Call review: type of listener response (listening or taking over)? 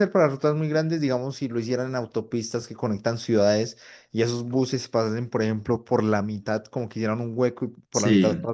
listening